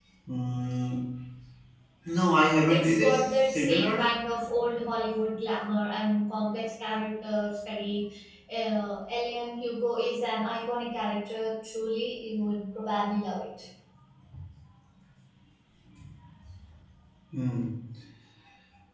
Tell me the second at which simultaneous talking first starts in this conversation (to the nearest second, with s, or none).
3 s